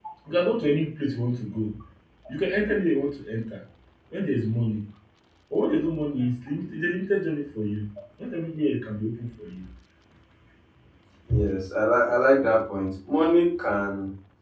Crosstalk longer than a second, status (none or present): none